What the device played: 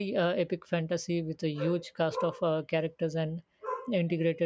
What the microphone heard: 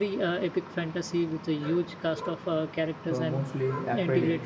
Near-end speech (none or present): present